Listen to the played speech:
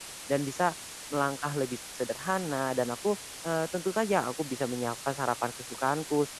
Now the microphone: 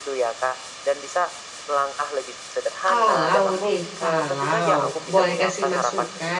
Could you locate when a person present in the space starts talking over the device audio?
2.9 s

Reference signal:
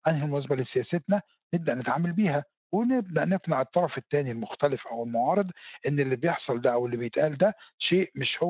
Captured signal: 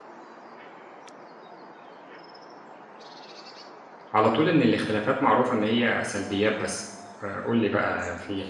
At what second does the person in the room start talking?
4.1 s

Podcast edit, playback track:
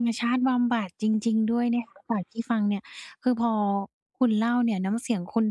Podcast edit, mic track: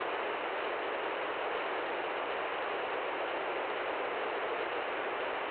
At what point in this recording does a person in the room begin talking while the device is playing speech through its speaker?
none

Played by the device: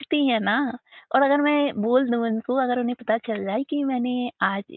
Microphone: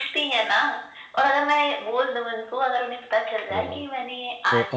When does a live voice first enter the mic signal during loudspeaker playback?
3.5 s

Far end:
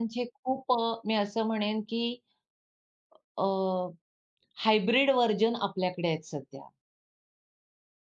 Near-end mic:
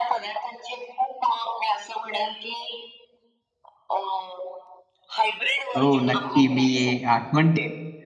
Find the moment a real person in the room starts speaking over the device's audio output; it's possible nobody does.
5.8 s

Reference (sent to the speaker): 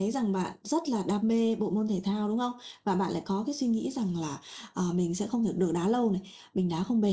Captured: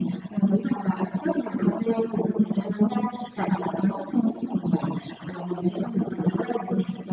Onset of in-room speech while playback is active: none

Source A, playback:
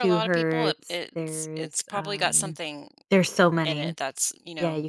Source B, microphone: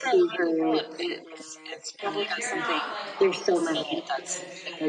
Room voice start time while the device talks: 2.0 s

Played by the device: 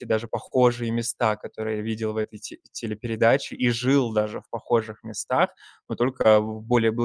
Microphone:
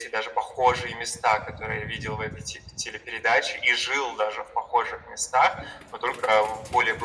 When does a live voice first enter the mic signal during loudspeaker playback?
none

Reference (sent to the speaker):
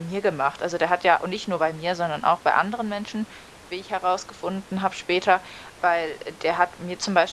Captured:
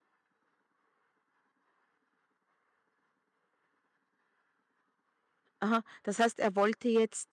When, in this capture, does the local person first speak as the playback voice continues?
5.6 s

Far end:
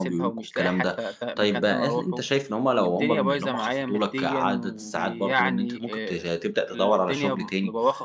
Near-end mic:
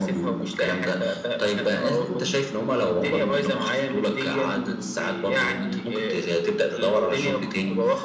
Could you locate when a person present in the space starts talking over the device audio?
none

